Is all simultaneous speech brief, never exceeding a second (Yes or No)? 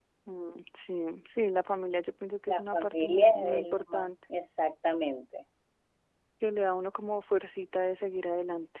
No